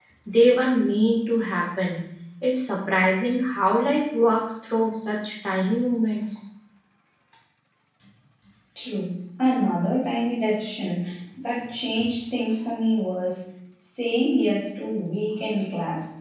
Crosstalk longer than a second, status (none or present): none